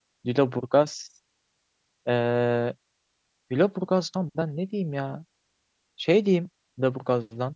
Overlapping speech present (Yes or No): No